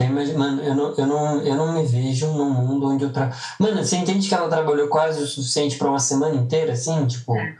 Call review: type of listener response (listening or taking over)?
listening